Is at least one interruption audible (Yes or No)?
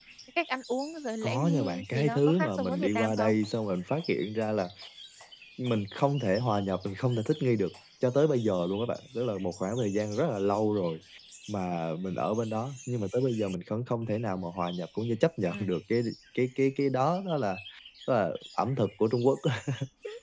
Yes